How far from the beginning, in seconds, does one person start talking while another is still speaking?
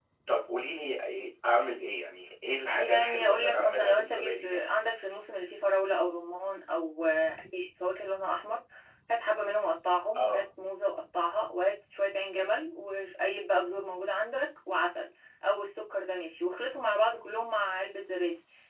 2.7 s

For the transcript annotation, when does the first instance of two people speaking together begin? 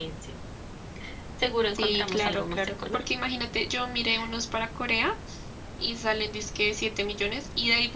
1.8 s

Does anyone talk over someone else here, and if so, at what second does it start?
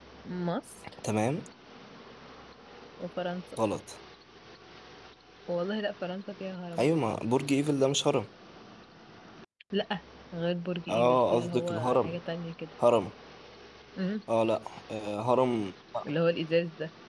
10.9 s

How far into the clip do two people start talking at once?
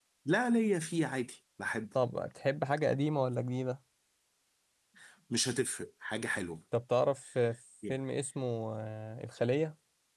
none

